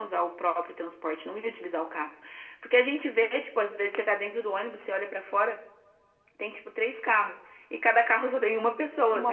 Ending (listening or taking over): listening